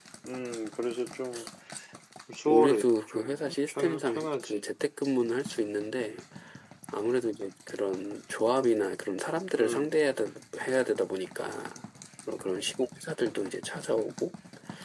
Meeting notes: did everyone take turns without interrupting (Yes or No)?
No